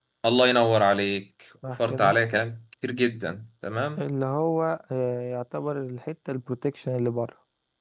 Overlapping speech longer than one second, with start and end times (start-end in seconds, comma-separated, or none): none